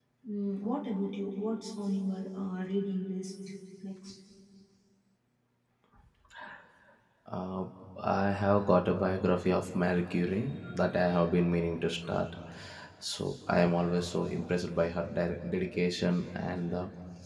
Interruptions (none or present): none